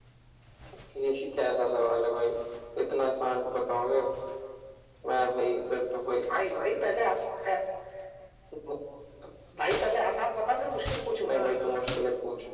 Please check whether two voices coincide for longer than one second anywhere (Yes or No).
No